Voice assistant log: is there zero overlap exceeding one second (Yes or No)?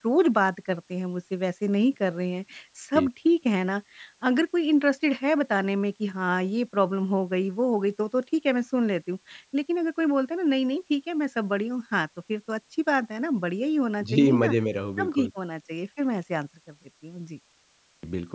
Yes